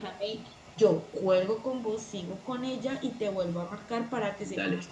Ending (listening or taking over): taking over